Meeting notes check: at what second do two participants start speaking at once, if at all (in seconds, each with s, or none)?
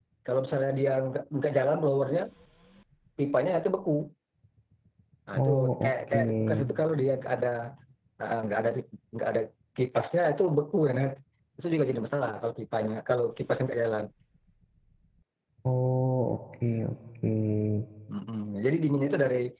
5.3 s